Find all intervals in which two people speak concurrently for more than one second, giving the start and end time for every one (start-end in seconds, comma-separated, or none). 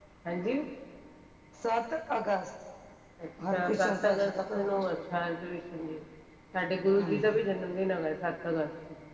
3.5-5.0